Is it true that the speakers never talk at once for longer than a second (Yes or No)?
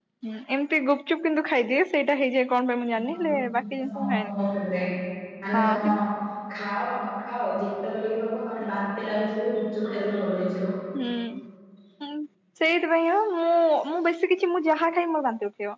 No